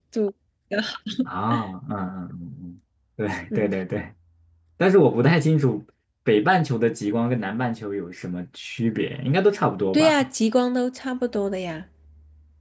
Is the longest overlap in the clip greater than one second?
No

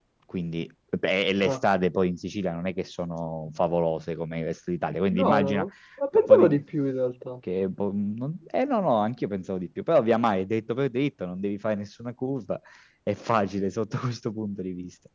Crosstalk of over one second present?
No

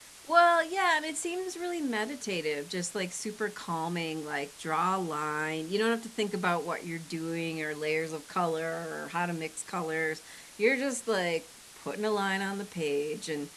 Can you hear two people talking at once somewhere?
No

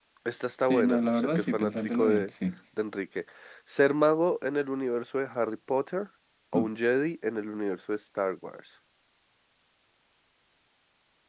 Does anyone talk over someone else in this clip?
Yes, from 0.7 s

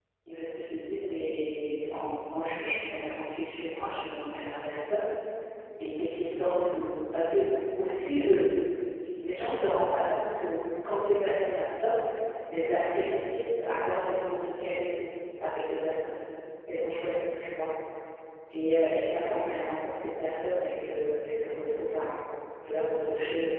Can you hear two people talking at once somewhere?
No

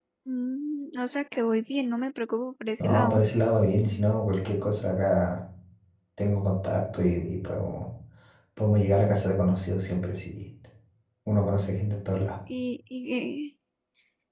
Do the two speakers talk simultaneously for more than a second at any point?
No

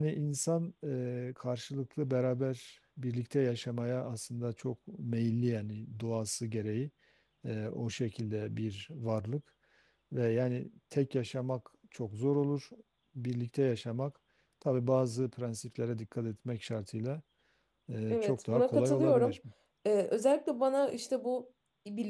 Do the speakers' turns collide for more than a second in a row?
Yes, from 18.1 s

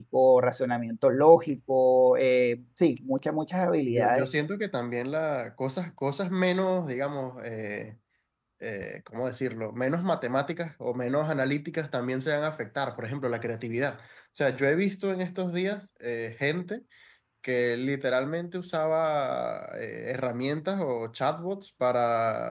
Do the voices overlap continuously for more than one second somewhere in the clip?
No

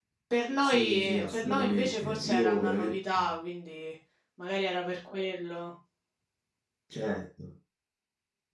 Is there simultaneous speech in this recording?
Yes, from 0.6 s

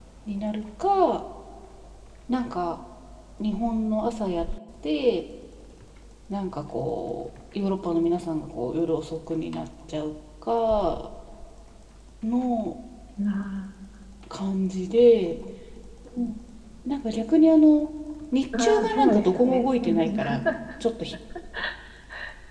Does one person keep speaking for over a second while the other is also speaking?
Yes, from 18.6 s

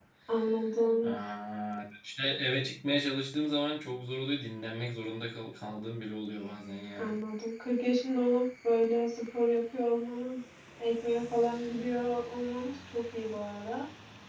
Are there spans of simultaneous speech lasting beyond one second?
No

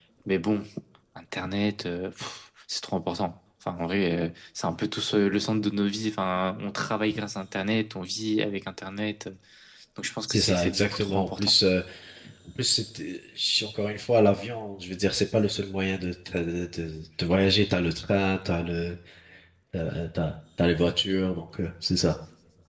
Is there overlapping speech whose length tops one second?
Yes, from 10.3 s

